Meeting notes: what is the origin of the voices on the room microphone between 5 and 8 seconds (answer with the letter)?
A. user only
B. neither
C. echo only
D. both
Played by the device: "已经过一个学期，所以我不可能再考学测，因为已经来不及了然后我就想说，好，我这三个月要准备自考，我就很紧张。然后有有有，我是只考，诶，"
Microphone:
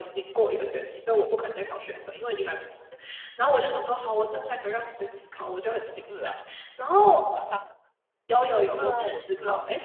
D